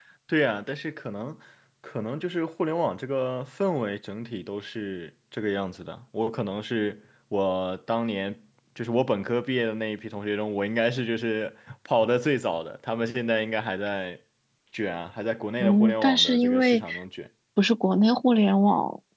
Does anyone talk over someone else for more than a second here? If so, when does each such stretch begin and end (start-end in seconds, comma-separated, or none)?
15.6-16.9